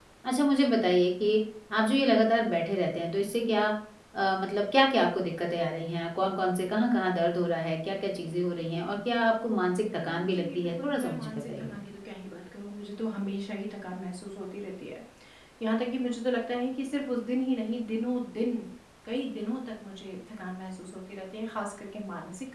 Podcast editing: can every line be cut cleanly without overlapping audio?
No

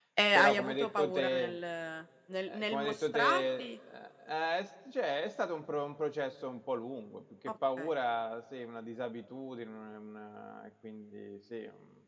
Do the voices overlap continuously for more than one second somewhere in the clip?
Yes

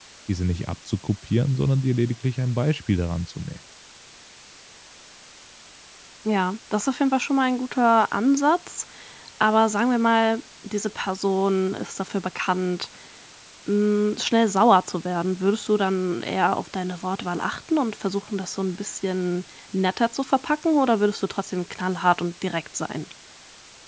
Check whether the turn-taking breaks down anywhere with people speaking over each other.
No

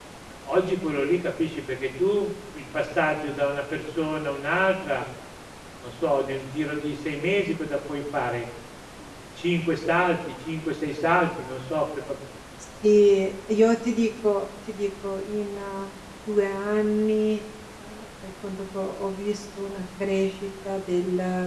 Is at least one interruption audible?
No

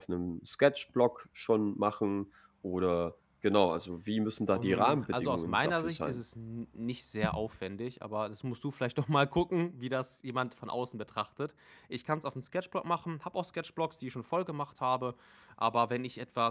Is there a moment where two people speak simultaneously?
Yes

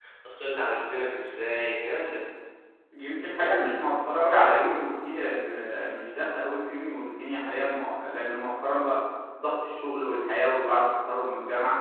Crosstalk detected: No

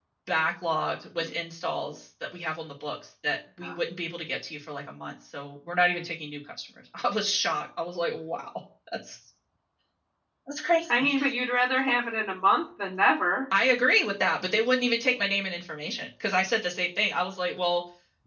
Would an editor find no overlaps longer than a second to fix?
Yes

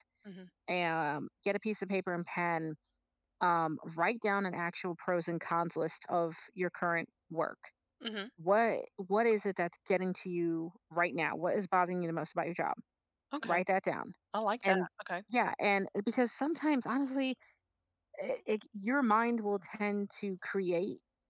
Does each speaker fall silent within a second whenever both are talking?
Yes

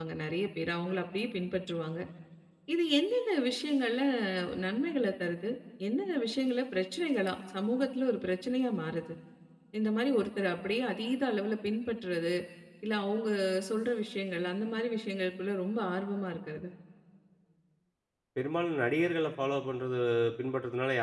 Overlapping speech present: No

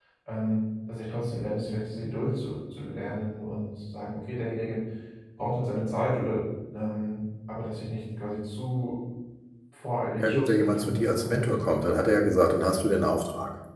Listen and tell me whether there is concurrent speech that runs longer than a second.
Yes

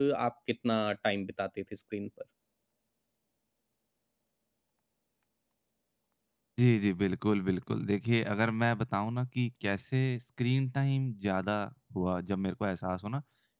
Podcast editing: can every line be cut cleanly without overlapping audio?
Yes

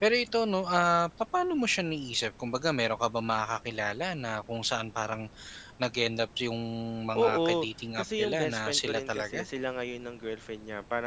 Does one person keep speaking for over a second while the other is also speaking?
Yes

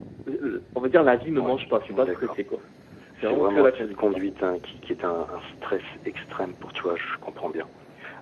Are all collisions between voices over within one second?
No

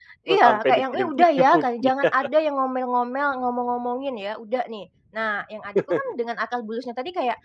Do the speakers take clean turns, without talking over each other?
No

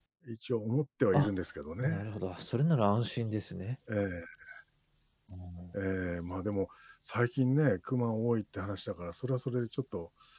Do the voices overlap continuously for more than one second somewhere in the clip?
No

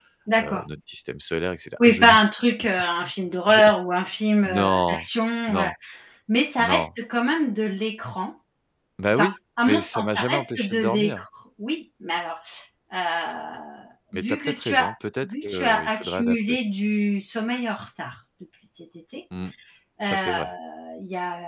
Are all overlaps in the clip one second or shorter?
No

